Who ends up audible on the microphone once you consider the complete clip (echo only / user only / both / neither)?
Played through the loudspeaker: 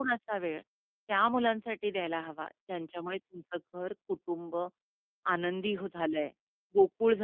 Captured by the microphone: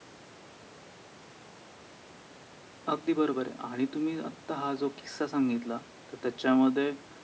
user only